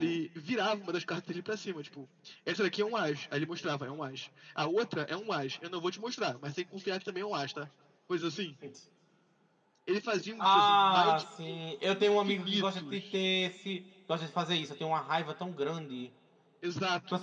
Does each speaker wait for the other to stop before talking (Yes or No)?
No